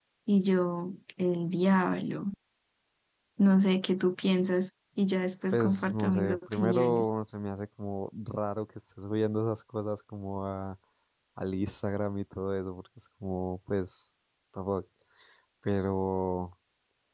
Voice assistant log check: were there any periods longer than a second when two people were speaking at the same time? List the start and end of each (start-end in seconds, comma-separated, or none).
5.5-7.0